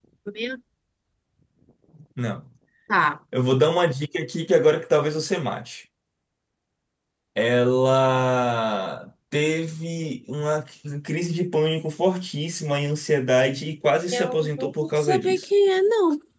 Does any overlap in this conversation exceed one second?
Yes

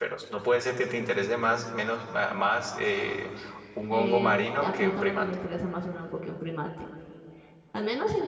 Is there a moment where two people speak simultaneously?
Yes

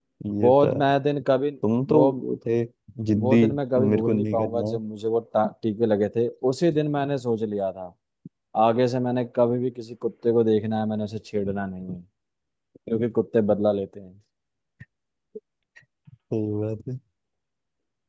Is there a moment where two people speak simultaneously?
Yes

